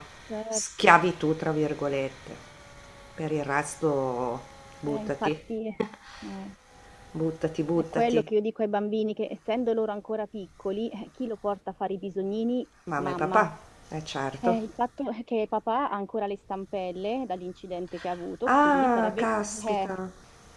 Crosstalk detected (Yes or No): Yes